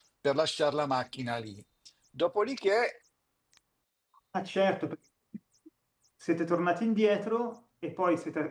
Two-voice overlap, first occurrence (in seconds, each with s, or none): none